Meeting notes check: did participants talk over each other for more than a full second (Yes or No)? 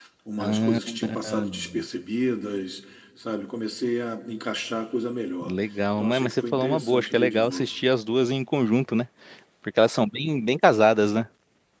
Yes